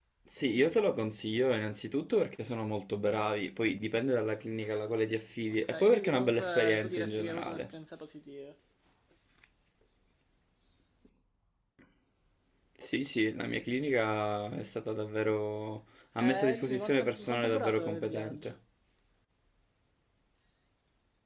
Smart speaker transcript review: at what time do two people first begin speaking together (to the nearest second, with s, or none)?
6 s